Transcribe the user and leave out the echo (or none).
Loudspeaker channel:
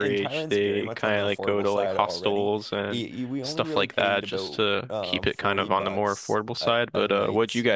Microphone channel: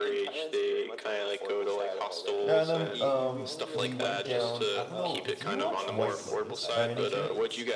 yeah, and then um we went down. I don't know, do you watch White Lotus by any chance?